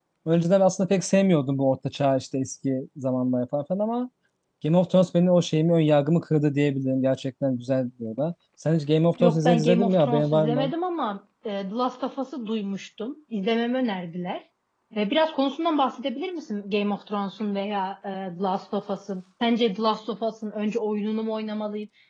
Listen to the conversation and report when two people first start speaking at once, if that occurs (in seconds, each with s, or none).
9.2 s